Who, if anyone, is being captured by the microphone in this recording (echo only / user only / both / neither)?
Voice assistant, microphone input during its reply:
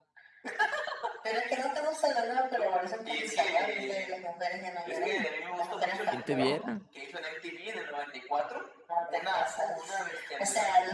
both